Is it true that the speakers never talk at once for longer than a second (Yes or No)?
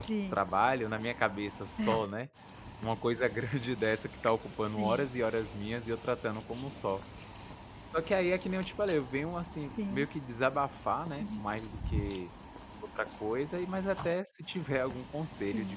Yes